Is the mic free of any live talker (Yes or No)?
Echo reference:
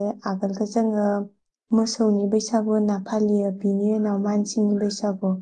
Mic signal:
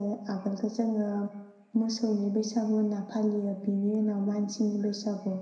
Yes